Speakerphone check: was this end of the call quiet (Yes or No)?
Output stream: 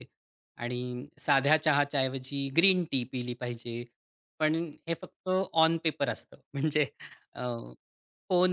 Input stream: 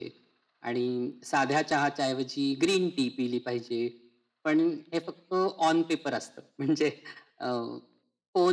Yes